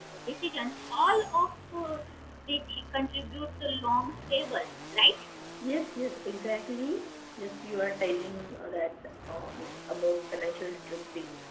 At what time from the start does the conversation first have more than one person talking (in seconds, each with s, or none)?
none